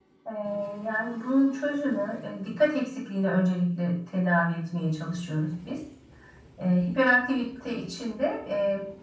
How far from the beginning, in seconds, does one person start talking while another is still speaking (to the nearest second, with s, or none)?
none